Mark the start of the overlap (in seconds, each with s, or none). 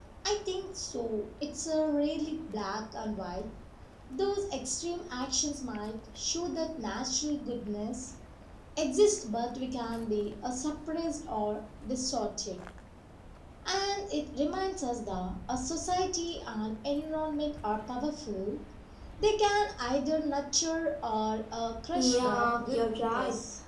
21.9 s